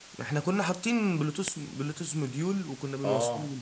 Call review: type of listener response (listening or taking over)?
taking over